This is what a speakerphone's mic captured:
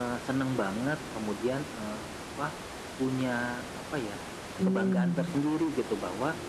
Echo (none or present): present